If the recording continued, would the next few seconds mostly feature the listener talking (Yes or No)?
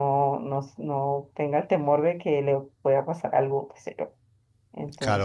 Yes